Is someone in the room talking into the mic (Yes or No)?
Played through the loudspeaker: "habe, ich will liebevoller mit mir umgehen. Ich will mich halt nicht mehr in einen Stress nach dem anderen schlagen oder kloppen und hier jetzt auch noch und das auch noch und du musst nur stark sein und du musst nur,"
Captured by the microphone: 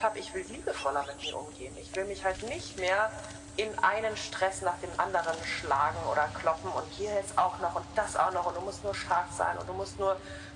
No